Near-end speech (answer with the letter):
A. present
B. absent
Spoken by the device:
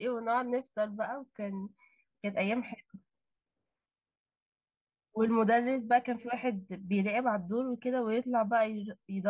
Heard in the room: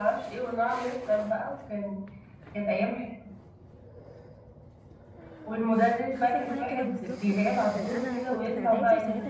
A